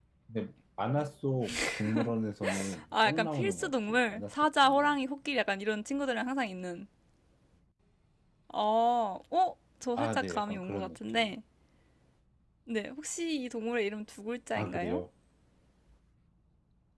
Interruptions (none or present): present